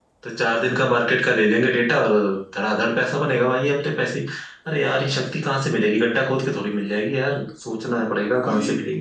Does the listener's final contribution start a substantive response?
Yes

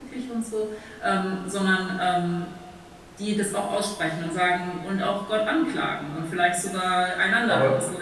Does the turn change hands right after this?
Yes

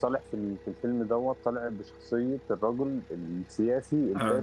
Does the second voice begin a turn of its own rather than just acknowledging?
Yes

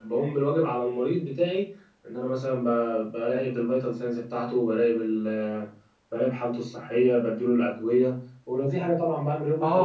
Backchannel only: No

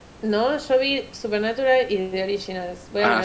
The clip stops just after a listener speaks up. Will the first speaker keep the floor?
No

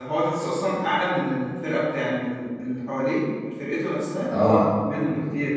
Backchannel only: Yes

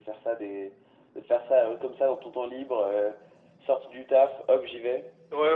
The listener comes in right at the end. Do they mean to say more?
Yes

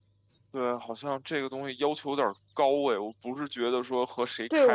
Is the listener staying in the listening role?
No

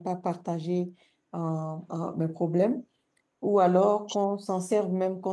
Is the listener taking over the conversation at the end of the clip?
No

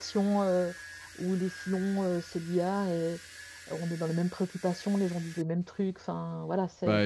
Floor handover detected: No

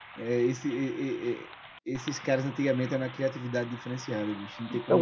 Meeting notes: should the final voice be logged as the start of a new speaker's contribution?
Yes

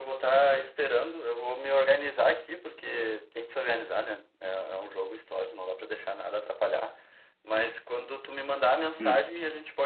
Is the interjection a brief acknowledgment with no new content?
Yes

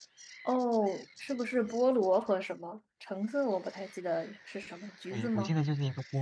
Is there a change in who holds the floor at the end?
Yes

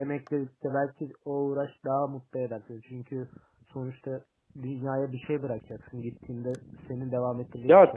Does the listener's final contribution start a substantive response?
Yes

